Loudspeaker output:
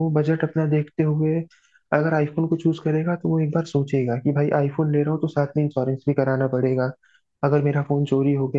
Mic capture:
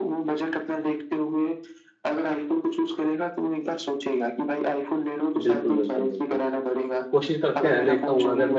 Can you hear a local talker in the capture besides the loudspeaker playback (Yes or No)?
Yes